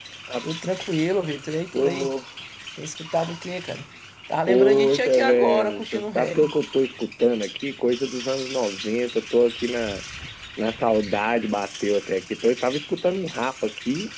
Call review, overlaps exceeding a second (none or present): present